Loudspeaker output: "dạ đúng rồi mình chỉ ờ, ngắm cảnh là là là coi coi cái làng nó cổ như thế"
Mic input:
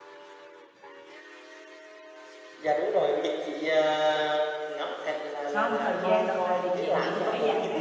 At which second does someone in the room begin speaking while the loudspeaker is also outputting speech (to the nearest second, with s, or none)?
6 s